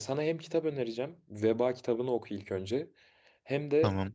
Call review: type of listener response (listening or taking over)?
listening